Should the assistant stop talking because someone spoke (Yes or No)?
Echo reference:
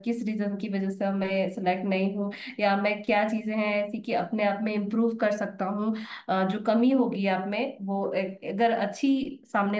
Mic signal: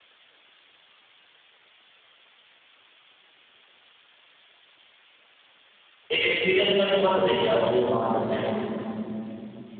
Yes